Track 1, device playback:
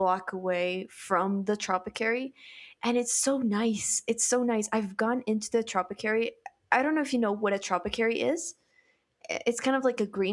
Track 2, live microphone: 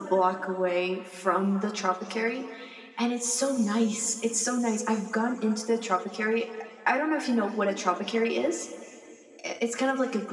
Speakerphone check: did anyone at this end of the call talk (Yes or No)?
No